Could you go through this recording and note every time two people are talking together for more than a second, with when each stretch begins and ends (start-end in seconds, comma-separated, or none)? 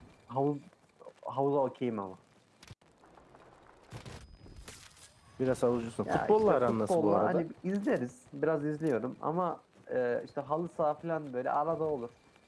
6.0-7.4